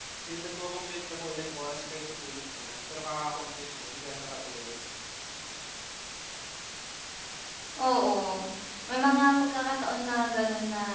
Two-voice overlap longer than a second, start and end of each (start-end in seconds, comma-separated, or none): none